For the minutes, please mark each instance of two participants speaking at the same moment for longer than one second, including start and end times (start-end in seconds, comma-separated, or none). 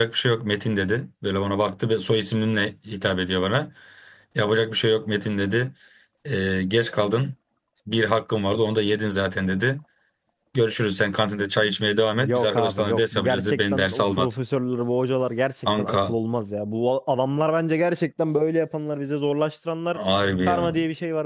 12.2-14.3